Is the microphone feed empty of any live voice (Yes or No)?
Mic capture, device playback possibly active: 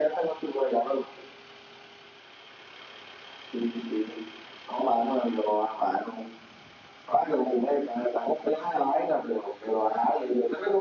Yes